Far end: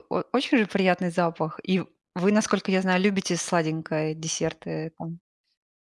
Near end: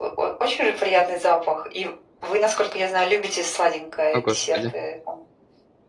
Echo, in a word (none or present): present